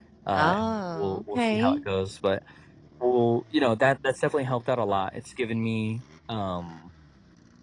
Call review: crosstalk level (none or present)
present